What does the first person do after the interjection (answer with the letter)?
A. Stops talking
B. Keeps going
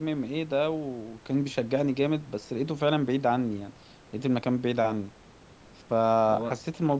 B